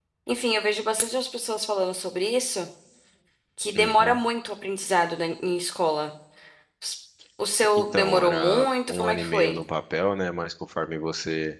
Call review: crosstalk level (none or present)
present